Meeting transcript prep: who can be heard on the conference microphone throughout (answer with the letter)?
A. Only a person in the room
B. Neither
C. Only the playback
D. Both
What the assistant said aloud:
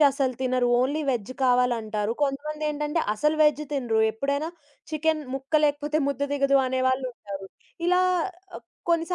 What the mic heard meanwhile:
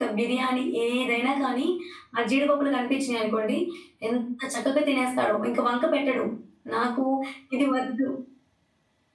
A